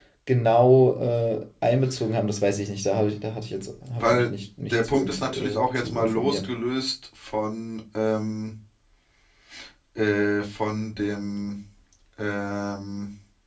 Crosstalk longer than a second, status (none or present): present